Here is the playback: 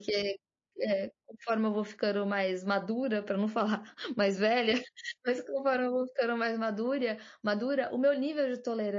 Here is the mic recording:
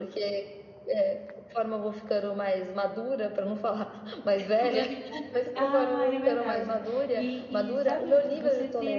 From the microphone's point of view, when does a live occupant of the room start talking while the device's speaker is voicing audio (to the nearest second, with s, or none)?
4 s